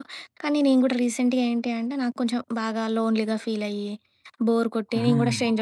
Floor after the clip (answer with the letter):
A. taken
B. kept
B